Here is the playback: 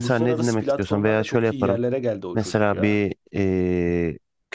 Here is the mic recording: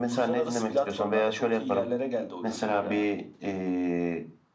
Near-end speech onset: none

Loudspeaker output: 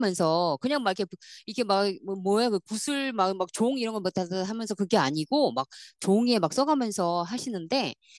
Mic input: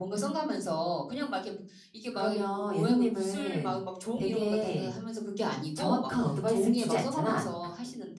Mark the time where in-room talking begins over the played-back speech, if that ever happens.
2.1 s

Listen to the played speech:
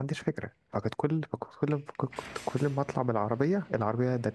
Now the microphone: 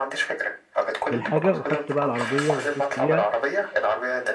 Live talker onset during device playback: 1.1 s

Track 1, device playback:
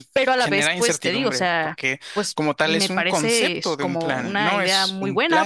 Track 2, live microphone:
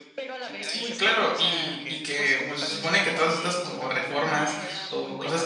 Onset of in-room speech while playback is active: 0.6 s

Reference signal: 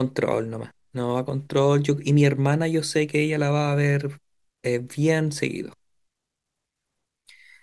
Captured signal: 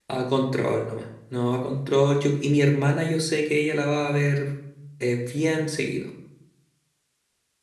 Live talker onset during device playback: none

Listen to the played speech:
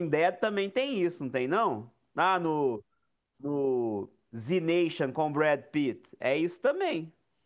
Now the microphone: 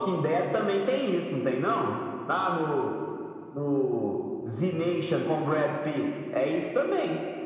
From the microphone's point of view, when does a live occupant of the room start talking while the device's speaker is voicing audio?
none

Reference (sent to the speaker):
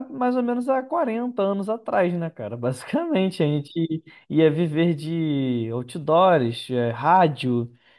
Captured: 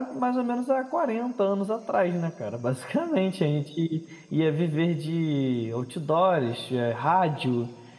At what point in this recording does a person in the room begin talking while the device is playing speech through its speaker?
none

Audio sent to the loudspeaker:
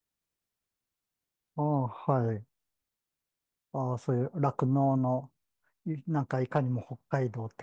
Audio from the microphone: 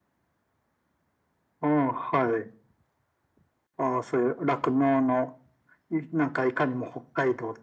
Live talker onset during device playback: none

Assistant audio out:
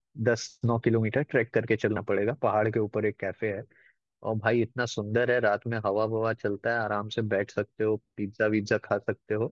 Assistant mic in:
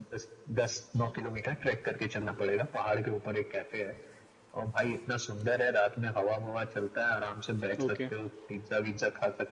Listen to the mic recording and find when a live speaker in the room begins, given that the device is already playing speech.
7.8 s

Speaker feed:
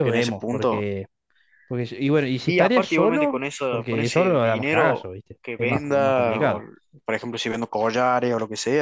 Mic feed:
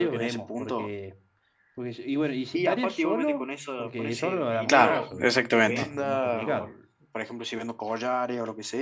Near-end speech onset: 4.7 s

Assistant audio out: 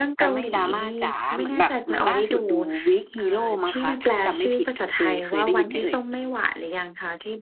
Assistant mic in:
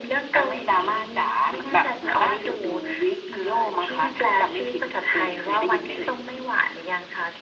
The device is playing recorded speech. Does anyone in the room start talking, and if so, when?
none

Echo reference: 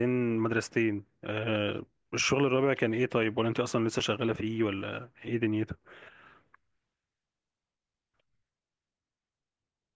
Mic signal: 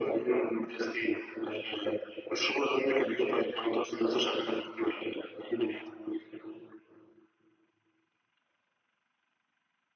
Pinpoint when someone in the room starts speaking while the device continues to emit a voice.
none

